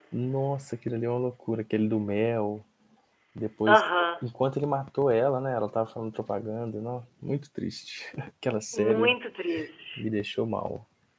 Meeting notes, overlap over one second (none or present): none